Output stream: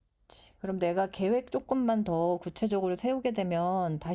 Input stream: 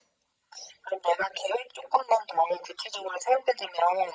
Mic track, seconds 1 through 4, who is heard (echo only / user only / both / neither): echo only